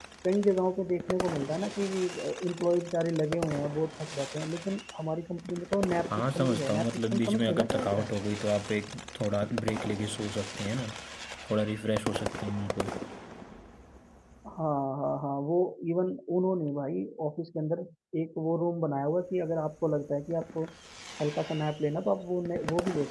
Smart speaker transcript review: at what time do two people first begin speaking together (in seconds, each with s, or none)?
6.1 s